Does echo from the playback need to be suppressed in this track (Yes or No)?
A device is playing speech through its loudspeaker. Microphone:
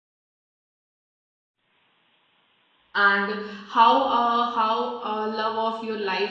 No